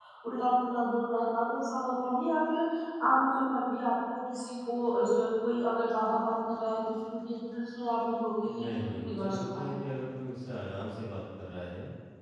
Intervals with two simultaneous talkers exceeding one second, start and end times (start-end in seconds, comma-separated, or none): 8.5-9.7